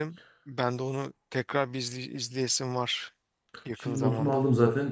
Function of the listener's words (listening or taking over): taking over